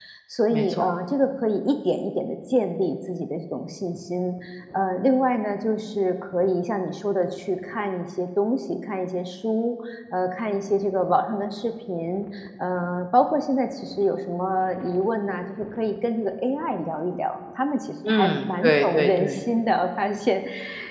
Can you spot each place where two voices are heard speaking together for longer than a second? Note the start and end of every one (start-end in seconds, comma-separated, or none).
18.1-19.4